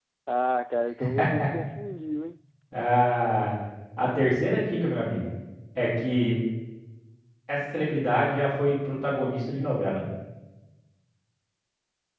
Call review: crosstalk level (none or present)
none